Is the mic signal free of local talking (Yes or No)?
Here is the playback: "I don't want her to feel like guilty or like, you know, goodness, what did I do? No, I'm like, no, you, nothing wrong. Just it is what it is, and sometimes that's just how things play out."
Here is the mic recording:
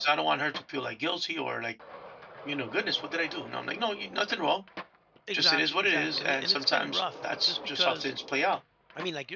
No